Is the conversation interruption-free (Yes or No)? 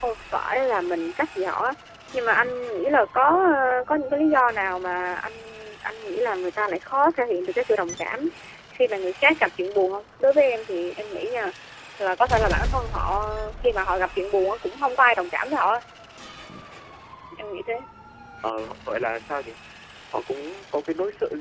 Yes